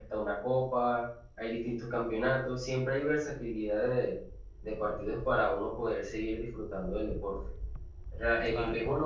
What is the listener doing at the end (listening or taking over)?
listening